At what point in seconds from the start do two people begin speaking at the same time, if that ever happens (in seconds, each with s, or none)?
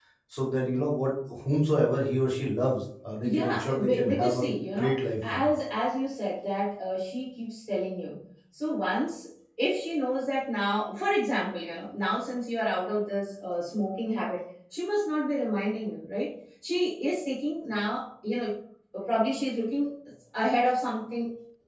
3.2 s